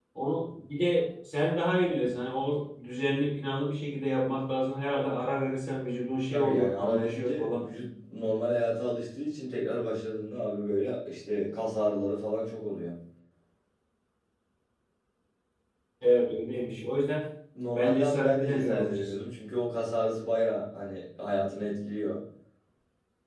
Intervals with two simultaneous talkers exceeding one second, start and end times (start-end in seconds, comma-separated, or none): 6.3-7.7, 17.8-19.2